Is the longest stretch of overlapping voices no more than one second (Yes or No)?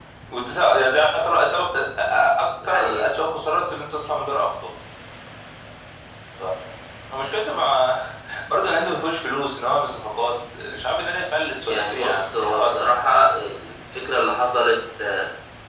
No